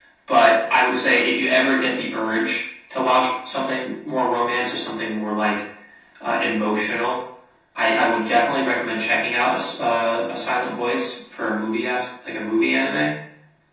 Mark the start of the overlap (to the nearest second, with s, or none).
none